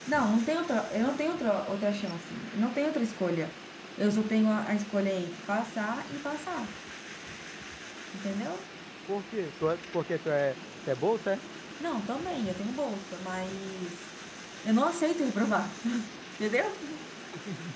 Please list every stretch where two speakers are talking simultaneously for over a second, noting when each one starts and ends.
none

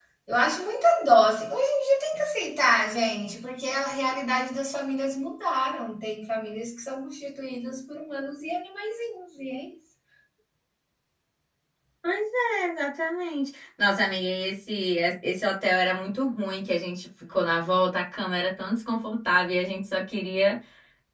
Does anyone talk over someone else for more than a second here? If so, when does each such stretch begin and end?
none

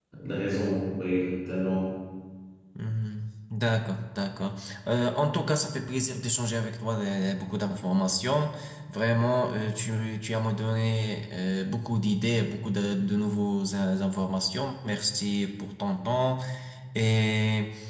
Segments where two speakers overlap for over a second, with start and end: none

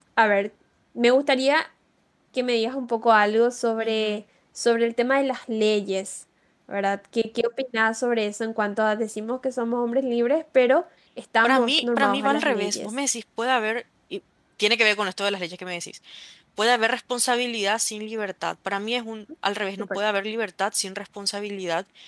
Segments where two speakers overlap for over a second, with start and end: 11.4-12.9

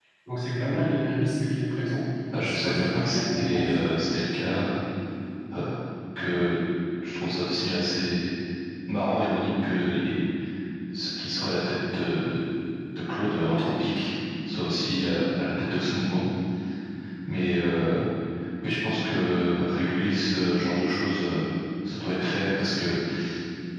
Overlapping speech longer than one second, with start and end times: 2.4-3.8

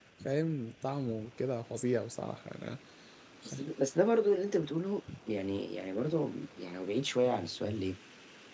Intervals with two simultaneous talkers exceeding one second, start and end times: none

